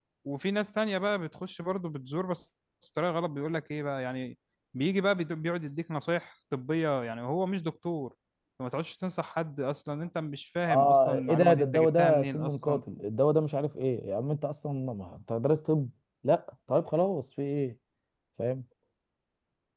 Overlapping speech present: Yes, from 10.7 s

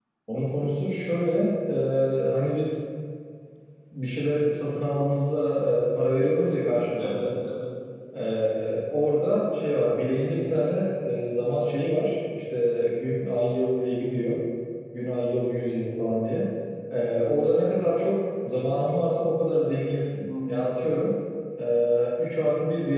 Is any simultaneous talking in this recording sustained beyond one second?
No

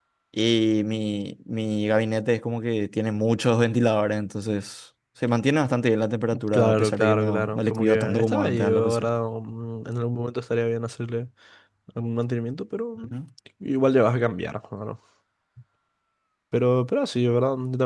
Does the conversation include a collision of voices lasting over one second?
Yes, from 6.3 s

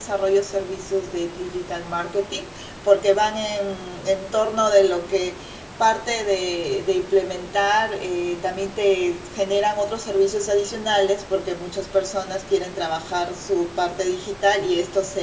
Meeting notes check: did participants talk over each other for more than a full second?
No

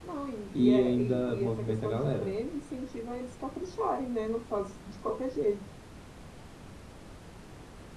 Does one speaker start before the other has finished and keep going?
Yes, from 0.5 s

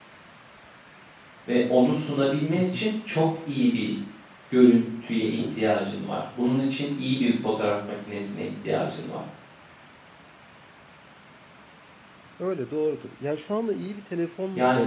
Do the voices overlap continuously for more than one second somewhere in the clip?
No

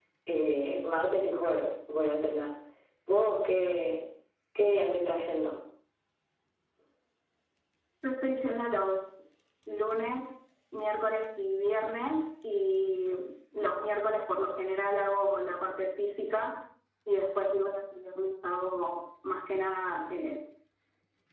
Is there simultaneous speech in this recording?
No

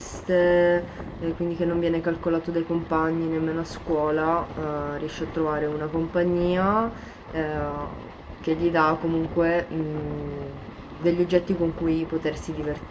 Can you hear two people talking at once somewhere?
No

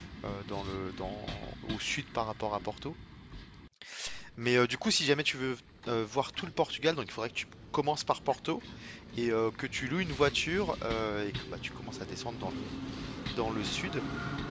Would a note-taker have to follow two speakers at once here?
No

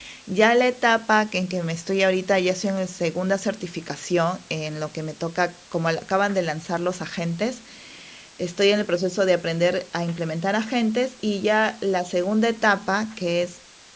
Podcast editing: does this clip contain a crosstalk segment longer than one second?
No

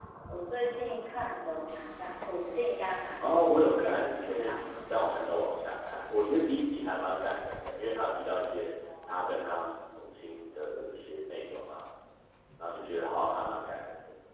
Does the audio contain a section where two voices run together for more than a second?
Yes, from 3.2 s

